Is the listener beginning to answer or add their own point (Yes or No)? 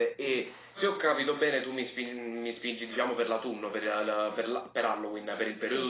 Yes